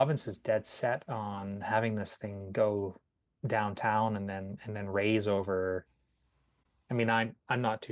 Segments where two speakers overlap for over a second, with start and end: none

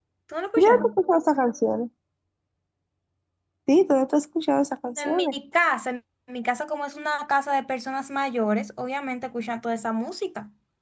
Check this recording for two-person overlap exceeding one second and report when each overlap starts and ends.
none

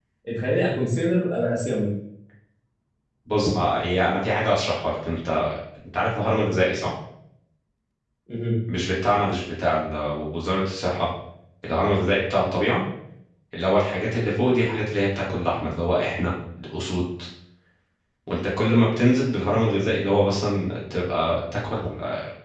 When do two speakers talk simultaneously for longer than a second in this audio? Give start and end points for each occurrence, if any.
none

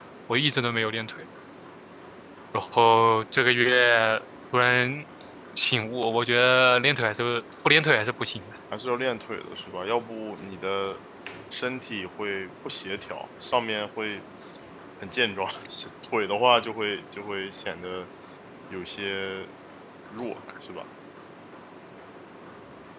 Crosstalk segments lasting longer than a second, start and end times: none

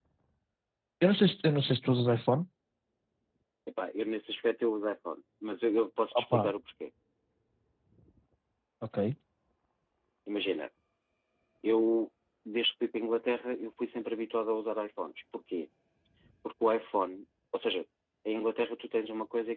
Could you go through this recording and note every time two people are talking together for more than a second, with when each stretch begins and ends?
none

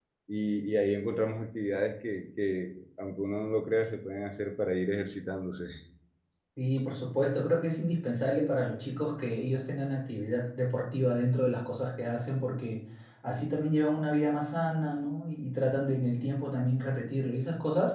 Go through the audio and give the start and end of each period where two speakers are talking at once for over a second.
none

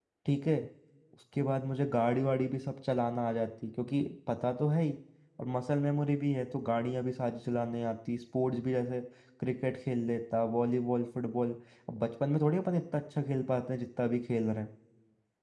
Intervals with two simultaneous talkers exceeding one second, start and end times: none

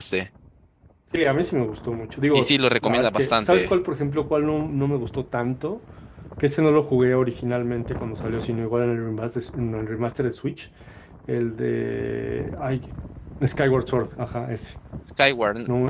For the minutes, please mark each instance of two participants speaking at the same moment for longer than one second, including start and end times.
2.3-3.7

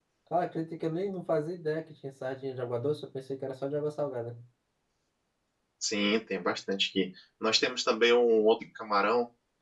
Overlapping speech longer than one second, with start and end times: none

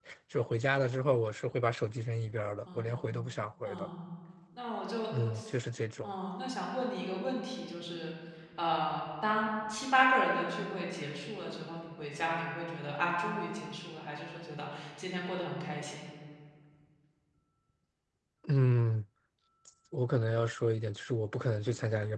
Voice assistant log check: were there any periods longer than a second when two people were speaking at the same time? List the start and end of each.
none

